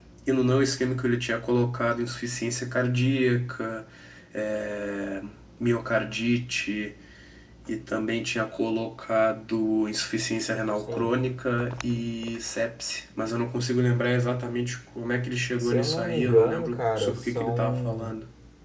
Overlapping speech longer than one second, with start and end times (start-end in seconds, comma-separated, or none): 15.6-18.1